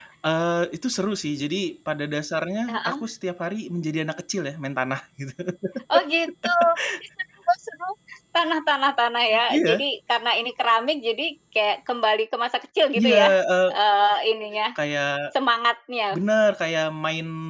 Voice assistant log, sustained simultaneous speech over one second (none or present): none